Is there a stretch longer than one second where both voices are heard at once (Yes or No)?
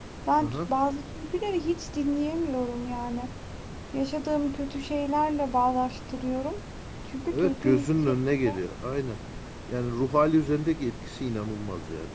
Yes